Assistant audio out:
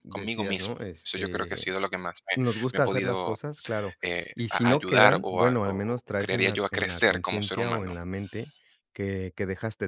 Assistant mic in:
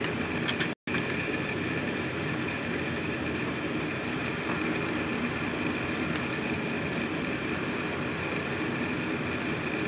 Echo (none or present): none